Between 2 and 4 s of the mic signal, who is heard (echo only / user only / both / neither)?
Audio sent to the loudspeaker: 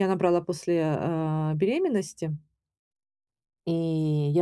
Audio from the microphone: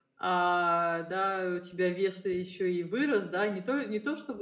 user only